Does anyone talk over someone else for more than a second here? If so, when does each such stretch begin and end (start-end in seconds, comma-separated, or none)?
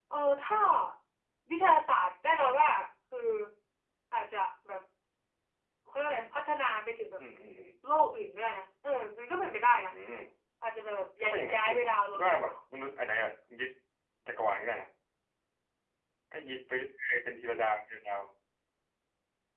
11.2-12.5